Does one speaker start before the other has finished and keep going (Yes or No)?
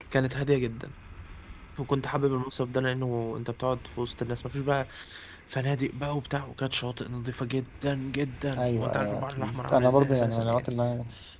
Yes